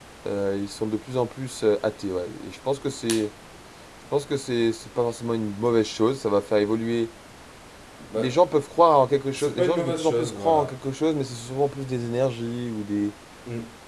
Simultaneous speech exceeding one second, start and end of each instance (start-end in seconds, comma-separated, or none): 9.3-10.8